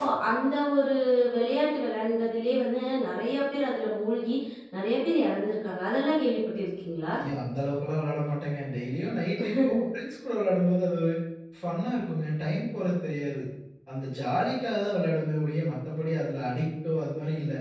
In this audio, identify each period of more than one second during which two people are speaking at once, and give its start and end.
none

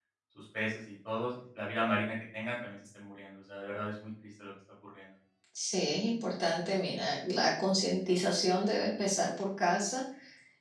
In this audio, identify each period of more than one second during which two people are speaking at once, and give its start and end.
none

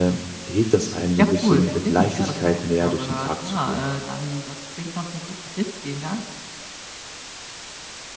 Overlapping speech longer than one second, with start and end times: 1.2-3.8

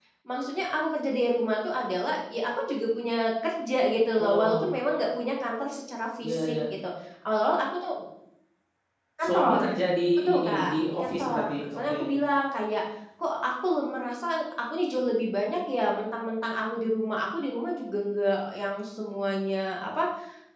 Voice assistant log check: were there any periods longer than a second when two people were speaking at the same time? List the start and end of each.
10.2-12.0

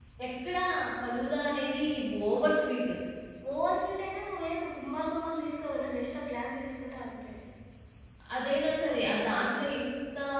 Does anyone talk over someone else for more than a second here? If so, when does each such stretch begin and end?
none

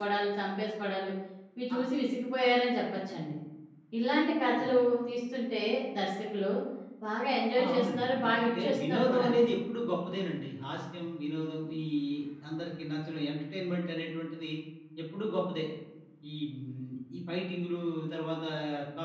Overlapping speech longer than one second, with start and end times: 7.6-9.3

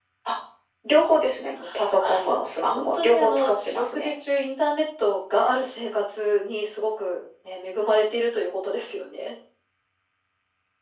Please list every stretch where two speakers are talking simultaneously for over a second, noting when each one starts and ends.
2.0-4.1

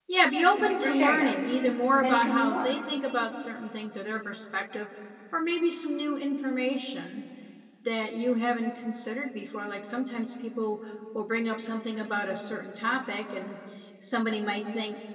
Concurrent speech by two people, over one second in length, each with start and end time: 0.6-2.8

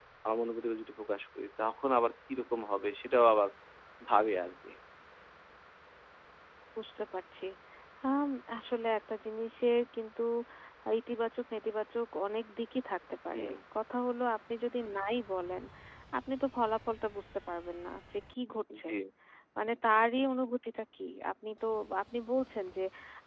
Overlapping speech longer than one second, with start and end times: none

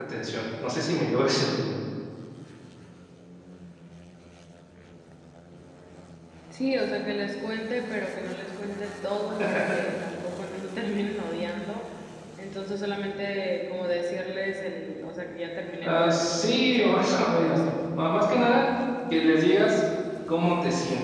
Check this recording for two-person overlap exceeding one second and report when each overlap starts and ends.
15.8-17.6

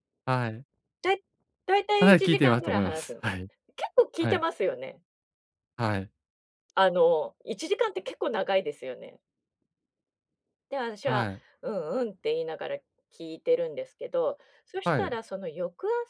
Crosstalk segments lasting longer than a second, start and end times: 2.0-3.3

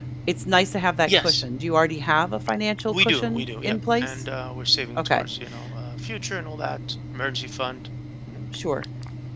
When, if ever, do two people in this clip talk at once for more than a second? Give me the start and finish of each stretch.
2.9-4.1

